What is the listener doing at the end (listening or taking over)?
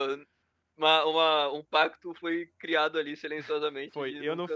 taking over